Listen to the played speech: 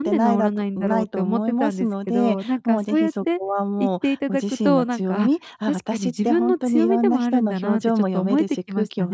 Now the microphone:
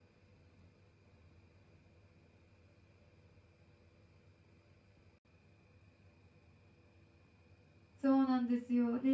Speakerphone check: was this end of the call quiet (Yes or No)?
No